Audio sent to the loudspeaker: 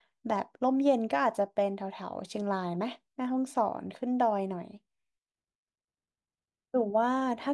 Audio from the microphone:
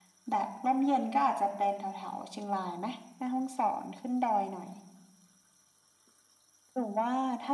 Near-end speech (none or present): none